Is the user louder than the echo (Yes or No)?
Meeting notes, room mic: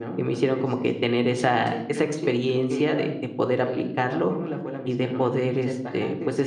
Yes